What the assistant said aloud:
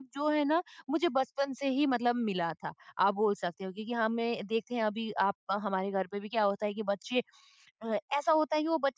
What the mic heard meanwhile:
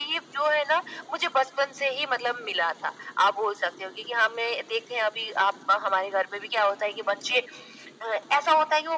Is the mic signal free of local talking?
Yes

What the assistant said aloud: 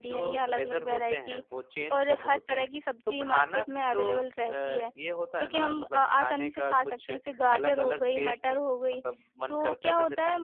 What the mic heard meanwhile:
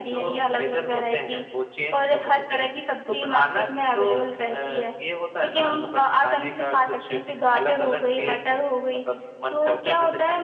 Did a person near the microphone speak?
No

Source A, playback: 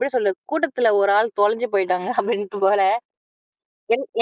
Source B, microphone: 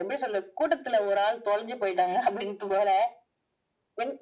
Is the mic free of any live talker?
Yes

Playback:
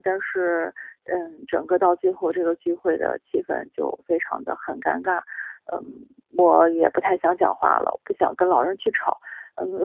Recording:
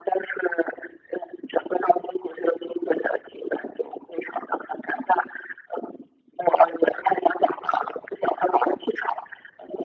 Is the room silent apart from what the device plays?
Yes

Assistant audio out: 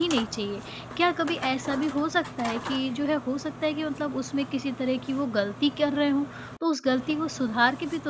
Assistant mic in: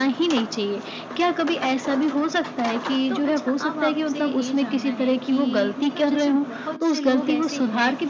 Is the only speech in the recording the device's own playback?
No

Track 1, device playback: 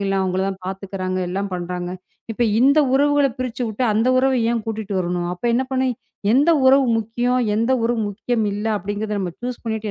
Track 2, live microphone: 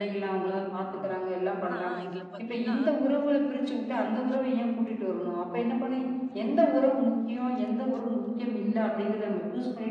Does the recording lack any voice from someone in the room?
No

